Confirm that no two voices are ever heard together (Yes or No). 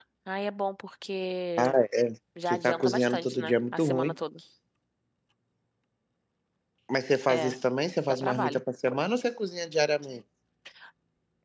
No